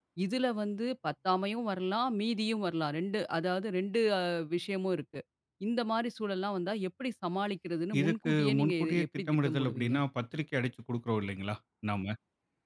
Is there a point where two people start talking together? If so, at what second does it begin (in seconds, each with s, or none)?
7.9 s